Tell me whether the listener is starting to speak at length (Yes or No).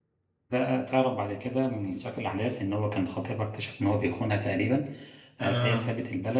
No